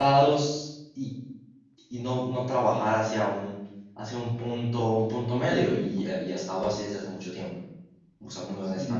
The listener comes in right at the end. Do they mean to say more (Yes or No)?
Yes